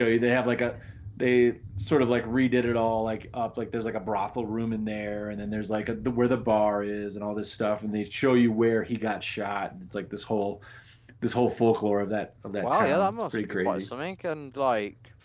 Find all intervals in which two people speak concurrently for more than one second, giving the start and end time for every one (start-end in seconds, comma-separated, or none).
12.6-13.9